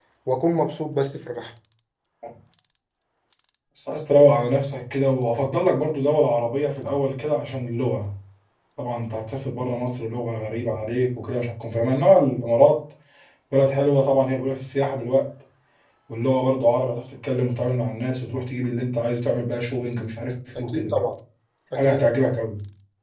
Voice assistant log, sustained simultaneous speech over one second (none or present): none